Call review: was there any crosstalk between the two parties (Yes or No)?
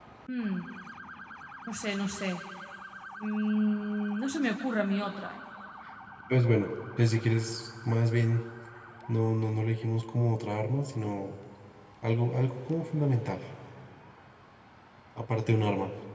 No